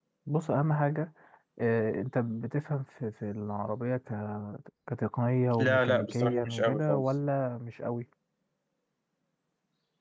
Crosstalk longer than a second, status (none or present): present